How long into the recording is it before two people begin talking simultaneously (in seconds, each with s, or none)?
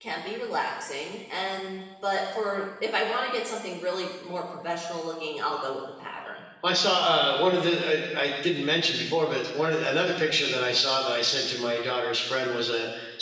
none